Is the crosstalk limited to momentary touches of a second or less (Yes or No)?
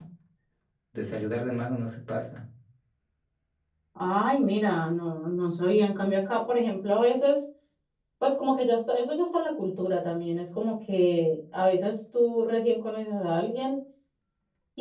Yes